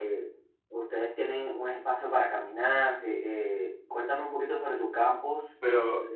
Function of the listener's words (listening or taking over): taking over